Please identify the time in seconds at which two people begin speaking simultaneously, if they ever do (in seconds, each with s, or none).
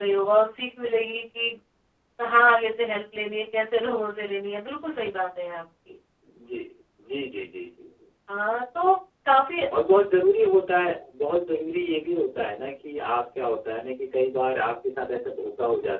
none